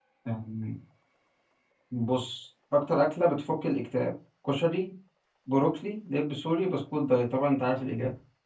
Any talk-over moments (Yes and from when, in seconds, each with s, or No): No